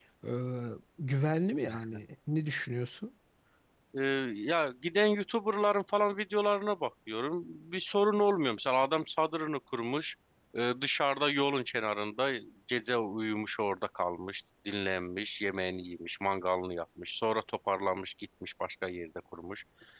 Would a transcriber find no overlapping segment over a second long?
Yes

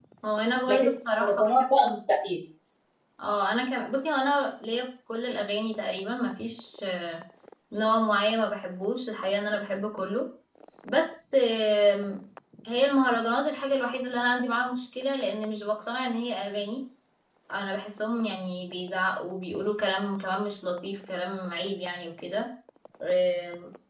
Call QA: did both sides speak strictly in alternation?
No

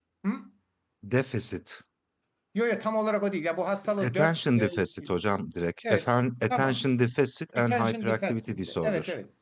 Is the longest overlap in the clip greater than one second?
Yes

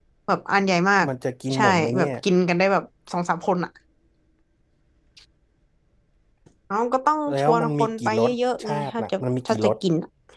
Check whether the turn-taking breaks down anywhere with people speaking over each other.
Yes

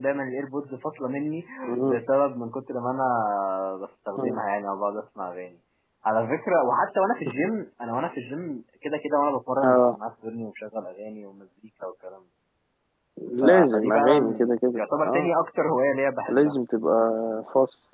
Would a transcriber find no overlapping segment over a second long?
No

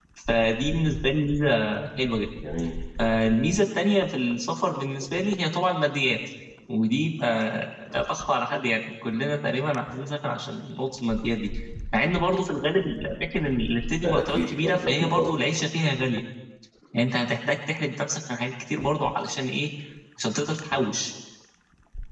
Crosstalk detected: Yes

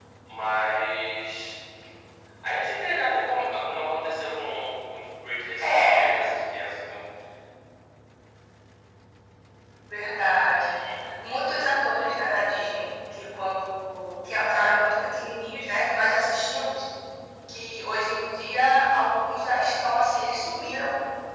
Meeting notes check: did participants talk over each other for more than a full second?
No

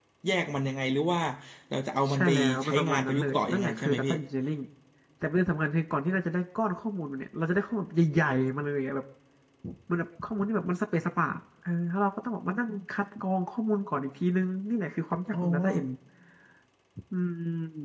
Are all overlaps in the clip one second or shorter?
No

